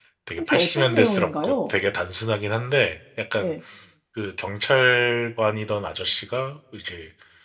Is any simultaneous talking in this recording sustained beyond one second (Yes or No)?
Yes